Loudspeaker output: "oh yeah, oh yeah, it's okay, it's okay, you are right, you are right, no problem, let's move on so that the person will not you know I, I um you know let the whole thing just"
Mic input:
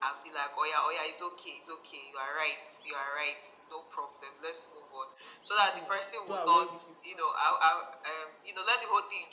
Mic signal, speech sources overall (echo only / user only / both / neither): both